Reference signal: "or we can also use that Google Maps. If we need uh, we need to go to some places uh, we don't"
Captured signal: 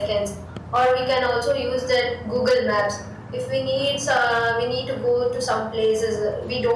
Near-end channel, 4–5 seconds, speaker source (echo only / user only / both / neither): echo only